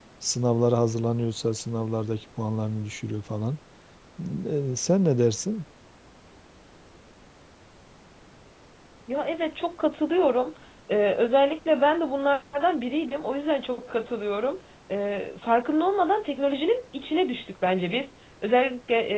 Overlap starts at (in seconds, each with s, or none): none